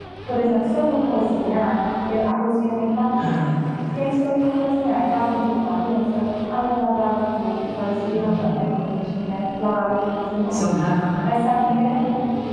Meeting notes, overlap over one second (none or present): none